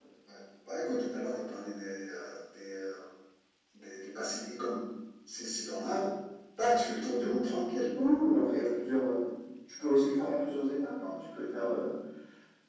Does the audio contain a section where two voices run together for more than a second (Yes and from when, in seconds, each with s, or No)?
No